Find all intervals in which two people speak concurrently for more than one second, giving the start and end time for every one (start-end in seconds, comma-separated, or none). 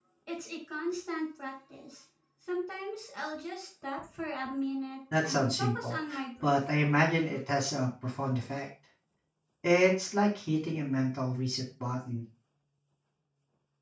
5.2-6.6